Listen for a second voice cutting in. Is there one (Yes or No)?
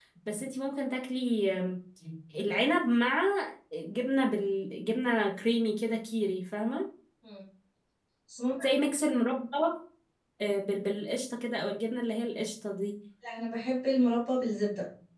No